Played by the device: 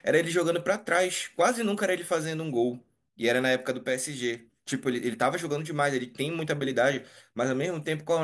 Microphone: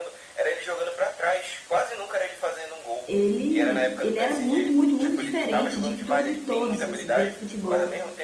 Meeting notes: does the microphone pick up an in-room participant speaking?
Yes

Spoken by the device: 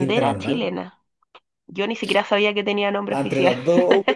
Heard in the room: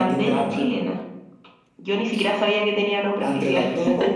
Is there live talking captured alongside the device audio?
No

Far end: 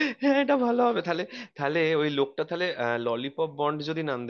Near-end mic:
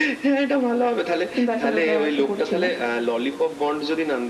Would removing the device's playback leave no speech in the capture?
No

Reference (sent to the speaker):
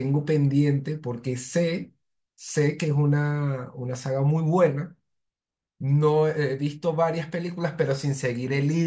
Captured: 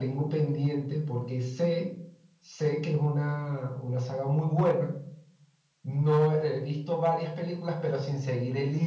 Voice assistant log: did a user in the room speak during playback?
No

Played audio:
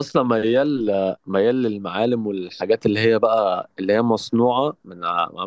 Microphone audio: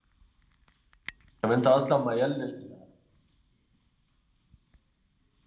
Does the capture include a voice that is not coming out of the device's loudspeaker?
Yes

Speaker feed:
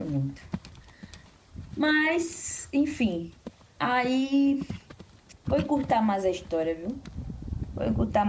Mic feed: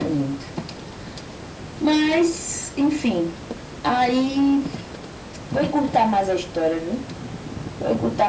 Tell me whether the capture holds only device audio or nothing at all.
Yes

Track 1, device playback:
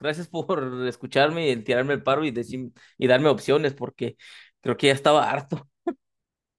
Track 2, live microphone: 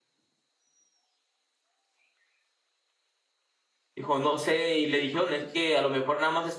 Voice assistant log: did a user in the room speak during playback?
Yes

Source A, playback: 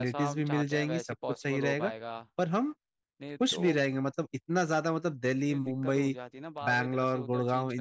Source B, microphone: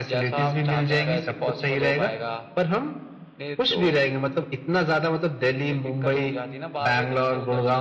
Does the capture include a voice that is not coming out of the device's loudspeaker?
No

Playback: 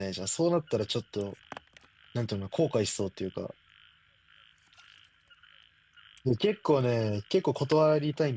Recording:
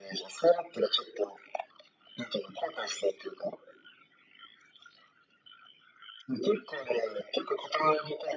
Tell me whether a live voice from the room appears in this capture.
No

